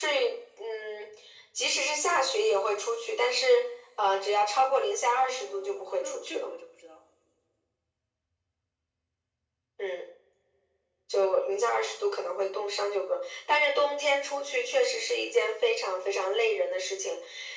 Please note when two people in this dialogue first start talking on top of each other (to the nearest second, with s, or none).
5 s